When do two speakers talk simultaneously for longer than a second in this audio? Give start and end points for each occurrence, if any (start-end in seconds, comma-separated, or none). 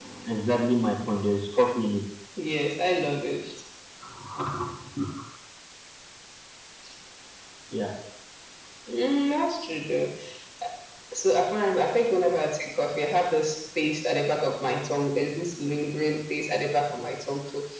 none